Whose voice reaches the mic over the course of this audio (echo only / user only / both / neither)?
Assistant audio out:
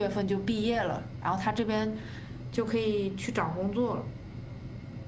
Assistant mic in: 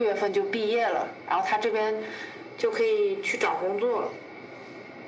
echo only